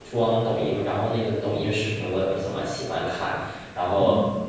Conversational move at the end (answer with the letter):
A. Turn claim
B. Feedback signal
B